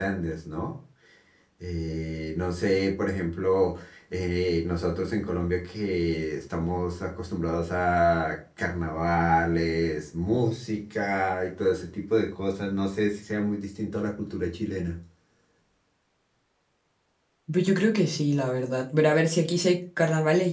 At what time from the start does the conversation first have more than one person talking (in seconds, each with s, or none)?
none